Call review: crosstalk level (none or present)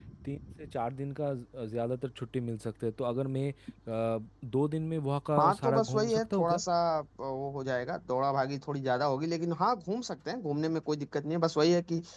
present